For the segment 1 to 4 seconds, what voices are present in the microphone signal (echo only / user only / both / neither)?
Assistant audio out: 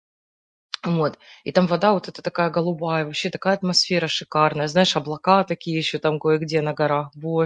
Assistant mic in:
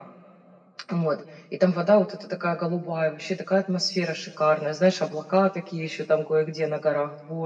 echo only